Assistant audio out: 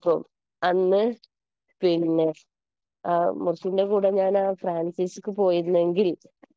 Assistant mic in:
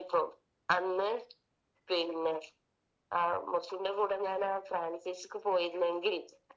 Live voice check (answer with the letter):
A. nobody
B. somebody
A